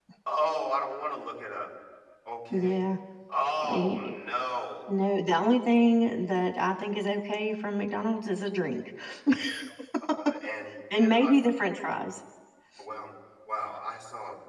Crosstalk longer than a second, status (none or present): none